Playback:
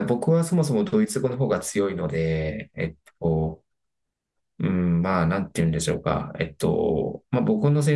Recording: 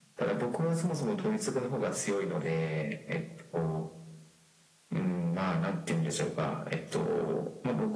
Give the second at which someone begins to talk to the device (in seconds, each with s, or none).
none